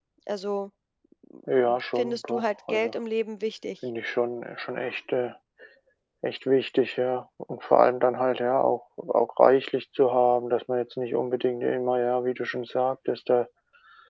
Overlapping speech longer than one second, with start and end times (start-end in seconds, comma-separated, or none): 1.6-2.9